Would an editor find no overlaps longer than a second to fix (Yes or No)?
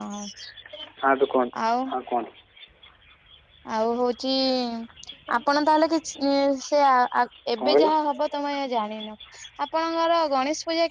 Yes